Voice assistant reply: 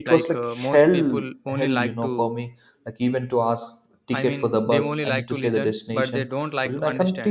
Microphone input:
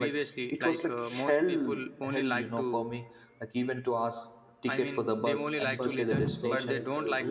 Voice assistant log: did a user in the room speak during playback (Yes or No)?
Yes